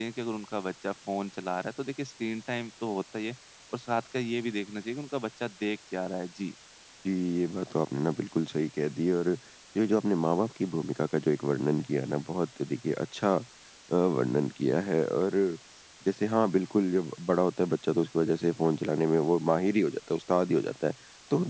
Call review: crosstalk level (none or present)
none